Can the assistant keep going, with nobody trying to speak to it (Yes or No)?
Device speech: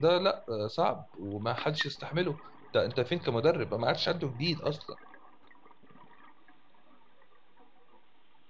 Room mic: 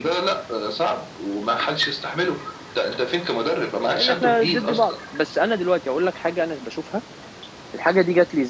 No